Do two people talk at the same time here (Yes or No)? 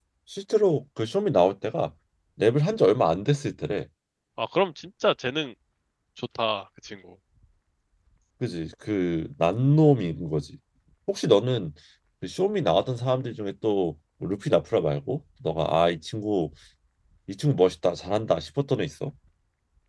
No